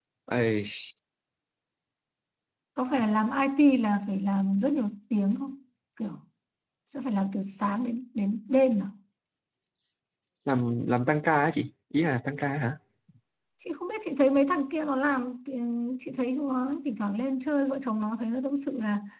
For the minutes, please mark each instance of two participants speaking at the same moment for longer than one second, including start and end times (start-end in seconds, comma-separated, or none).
none